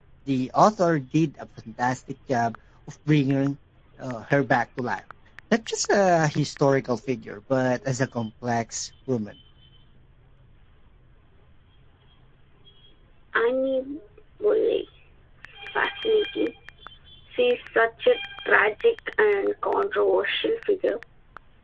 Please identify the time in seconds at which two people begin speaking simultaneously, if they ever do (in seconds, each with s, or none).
none